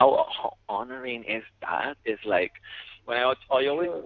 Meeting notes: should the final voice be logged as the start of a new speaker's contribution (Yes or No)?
No